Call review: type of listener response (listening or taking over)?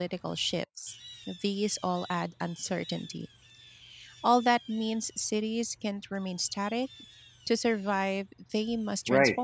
taking over